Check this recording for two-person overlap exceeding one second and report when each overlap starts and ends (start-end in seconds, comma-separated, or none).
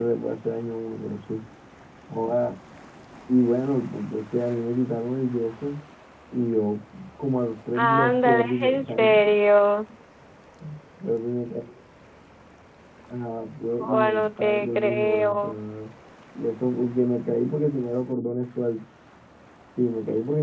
7.7-9.2, 13.8-15.6